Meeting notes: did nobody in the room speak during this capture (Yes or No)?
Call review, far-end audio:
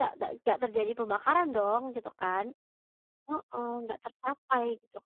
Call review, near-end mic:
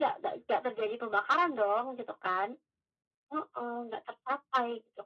Yes